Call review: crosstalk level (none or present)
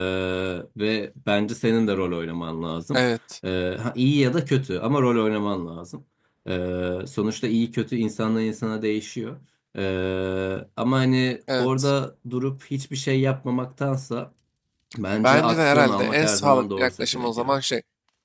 present